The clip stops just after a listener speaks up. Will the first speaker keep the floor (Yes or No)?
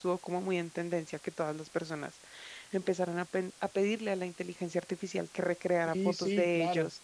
No